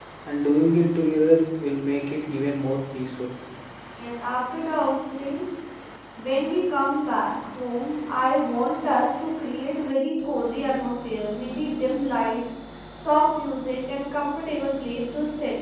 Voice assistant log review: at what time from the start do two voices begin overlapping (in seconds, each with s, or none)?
none